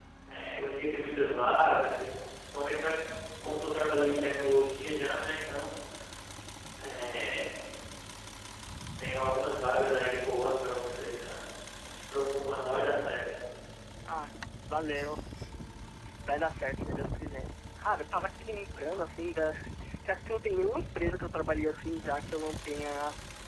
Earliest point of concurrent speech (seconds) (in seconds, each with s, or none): none